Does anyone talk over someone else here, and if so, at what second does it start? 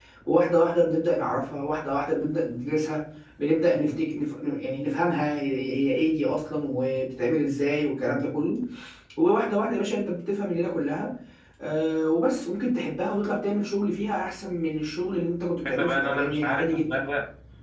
15.7 s

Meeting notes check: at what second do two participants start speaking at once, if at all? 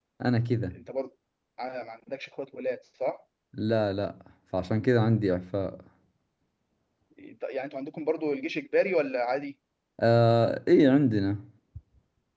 none

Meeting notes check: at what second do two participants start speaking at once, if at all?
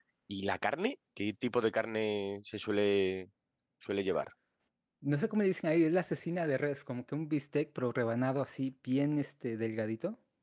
none

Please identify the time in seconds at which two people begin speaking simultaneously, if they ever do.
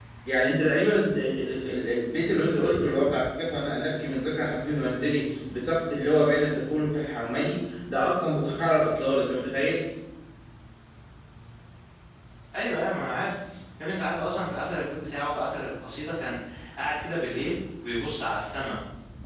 none

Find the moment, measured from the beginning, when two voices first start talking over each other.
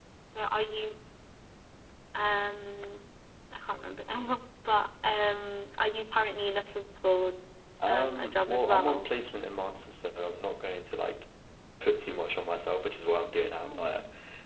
7.9 s

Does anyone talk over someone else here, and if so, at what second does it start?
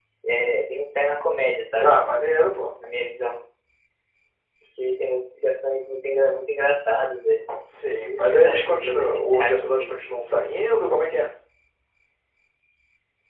7.9 s

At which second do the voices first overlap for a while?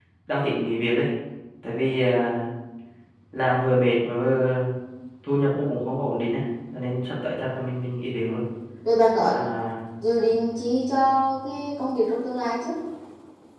none

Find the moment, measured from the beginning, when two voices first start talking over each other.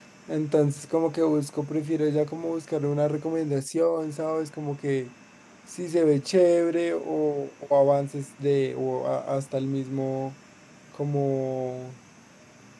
none

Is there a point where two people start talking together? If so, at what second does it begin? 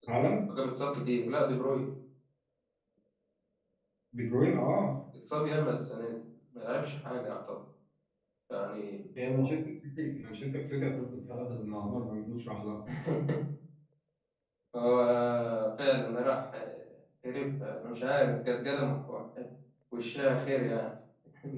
none

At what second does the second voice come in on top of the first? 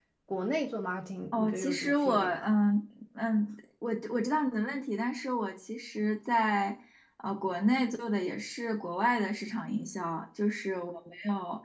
1.3 s

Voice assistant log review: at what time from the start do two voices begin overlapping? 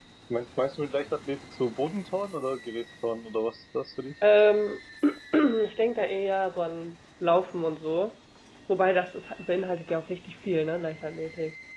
none

